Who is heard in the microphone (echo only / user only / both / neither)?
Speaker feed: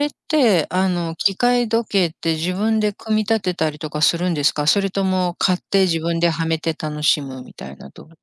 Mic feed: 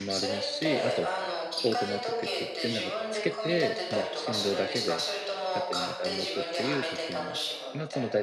both